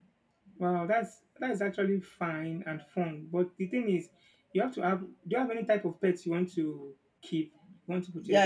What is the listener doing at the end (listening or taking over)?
taking over